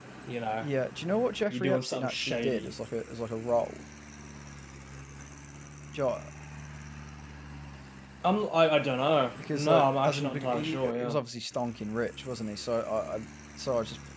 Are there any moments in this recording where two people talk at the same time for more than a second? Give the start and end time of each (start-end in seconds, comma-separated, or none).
1.5-2.7, 9.4-11.2